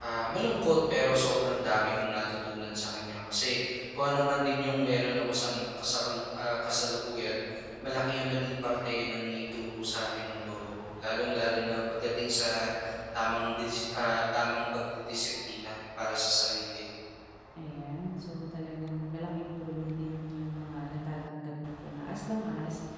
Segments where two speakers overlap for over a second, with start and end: none

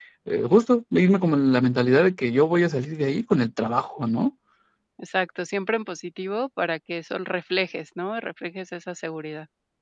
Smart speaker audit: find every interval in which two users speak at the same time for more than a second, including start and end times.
none

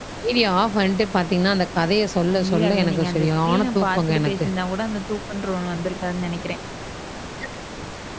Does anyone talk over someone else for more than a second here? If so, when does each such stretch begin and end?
2.3-4.5

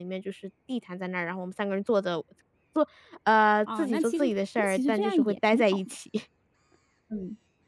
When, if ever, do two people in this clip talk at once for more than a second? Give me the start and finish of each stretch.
3.8-6.0

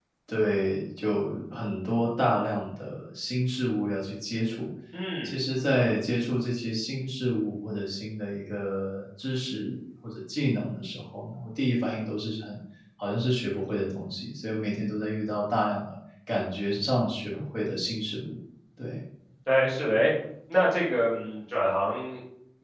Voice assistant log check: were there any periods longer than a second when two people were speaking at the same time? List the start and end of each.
none

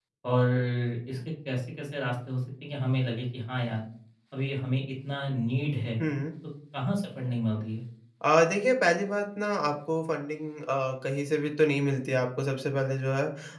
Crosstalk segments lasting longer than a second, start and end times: none

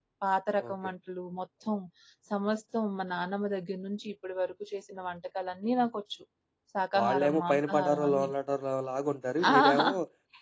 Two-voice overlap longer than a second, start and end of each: 7.0-8.3

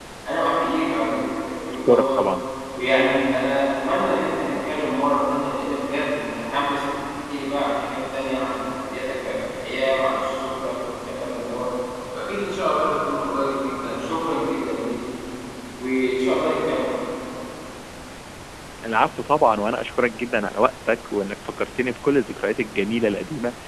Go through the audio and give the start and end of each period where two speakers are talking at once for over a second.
none

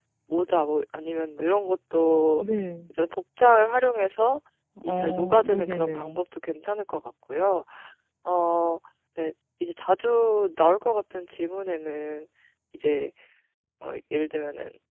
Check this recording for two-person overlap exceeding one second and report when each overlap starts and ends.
4.8-6.2

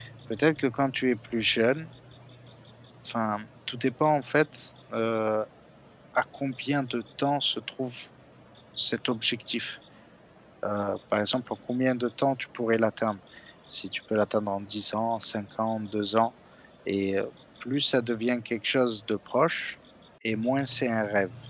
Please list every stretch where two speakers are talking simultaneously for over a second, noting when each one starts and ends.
none

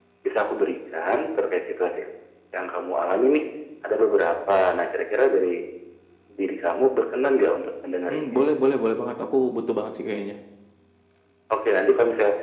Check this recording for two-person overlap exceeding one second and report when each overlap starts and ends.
none

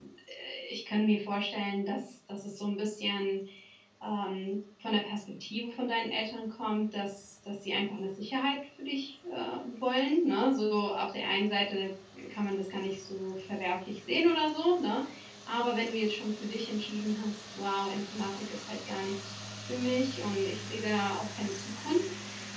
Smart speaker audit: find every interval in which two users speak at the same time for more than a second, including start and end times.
none

